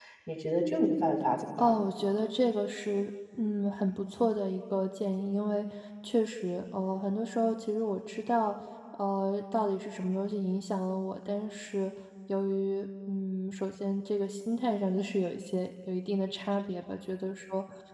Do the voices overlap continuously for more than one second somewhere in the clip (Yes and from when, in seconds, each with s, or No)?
No